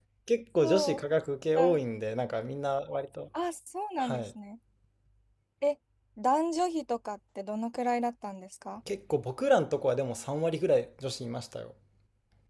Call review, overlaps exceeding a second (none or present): none